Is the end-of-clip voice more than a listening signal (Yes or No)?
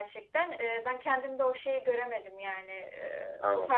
No